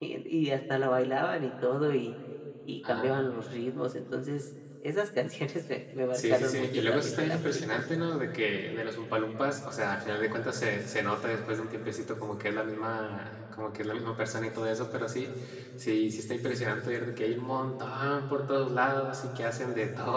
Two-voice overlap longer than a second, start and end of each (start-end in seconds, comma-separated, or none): 6.1-7.8